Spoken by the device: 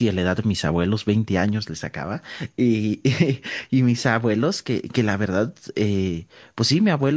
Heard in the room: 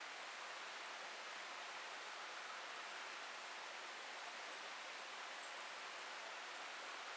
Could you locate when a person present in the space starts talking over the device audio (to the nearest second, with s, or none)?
none